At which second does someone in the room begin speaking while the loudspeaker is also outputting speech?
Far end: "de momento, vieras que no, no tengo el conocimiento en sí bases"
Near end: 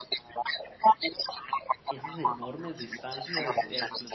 2 s

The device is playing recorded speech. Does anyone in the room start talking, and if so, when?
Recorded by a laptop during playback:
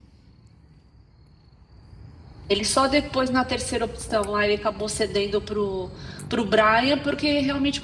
2 s

